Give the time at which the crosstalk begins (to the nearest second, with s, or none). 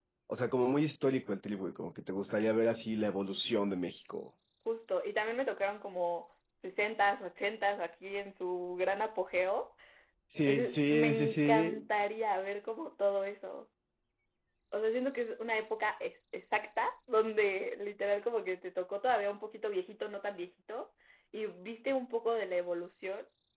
10 s